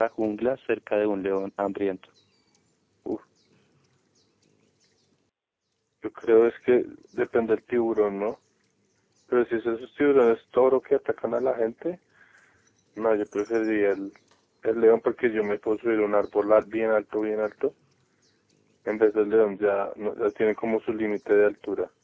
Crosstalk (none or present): none